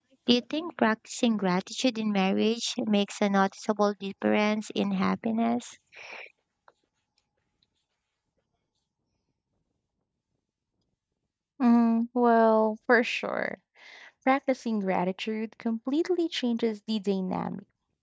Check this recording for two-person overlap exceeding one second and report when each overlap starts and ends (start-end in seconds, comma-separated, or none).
none